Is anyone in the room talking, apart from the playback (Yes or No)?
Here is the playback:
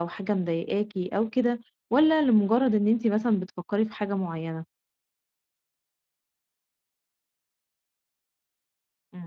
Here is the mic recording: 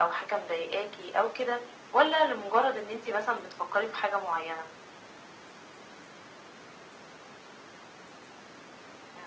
No